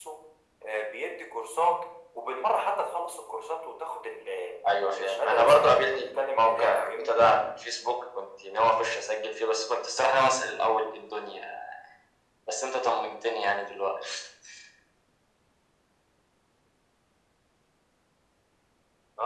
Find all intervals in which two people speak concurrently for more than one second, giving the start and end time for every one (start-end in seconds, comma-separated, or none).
5.0-7.2